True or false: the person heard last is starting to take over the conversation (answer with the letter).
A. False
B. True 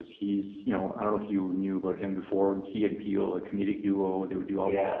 A